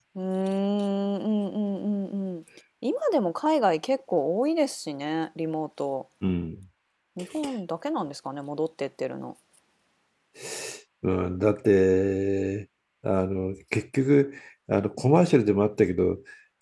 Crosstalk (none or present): none